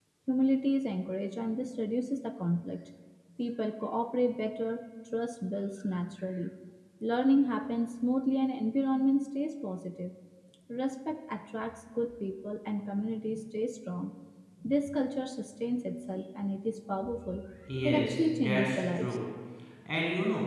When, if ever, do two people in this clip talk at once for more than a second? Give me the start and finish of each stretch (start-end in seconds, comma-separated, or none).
17.9-19.1